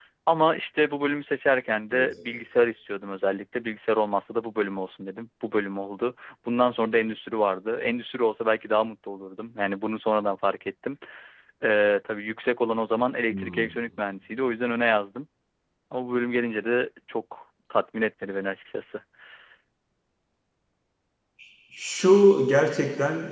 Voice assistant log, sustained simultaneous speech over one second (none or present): none